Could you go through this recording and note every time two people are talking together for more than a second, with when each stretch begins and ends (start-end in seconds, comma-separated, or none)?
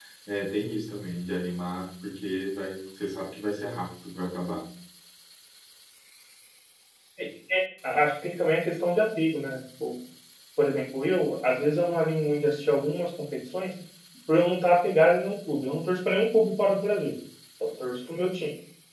none